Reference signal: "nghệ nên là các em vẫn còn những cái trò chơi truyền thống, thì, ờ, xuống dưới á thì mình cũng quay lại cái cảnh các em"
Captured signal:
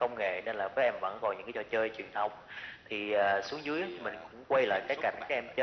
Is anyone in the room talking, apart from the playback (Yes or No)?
Yes